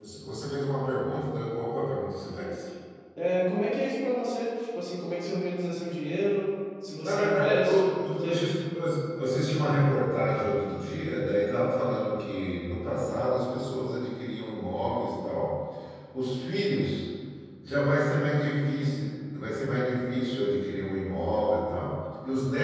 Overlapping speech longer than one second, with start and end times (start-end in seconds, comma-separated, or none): 7.0-8.5